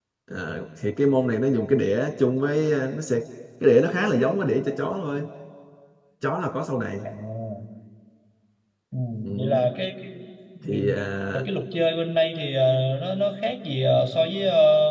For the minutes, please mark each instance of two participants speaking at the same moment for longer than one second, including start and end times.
none

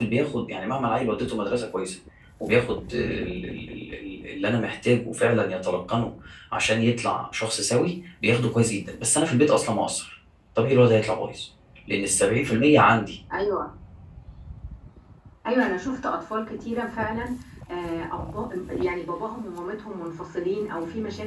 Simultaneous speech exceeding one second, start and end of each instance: none

